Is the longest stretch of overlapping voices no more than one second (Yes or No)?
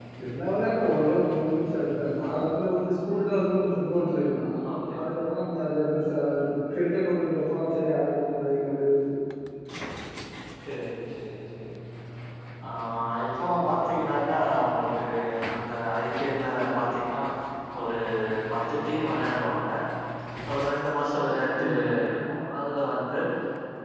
Yes